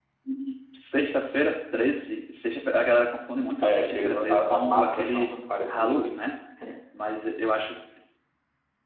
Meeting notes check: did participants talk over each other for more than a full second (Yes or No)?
Yes